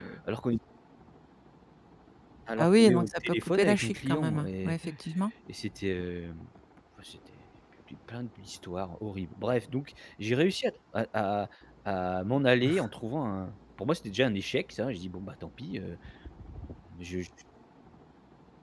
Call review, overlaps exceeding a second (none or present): present